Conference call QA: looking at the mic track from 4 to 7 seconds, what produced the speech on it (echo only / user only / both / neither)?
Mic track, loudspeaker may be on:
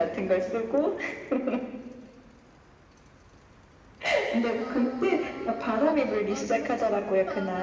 both